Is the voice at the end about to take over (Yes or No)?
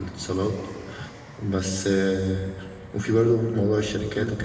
No